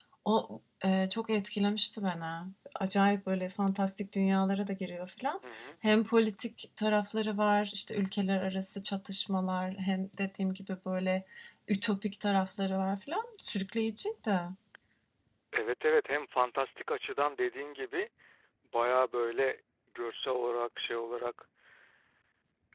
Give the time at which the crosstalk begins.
none

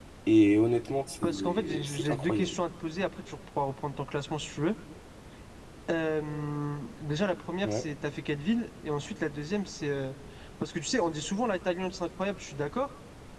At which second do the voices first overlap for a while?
1 s

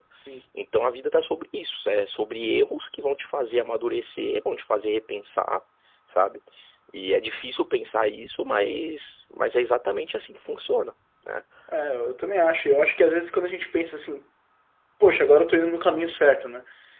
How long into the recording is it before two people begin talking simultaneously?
none

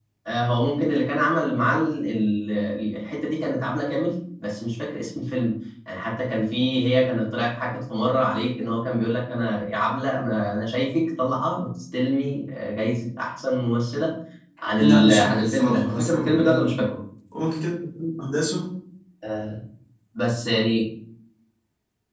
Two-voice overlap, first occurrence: 15 s

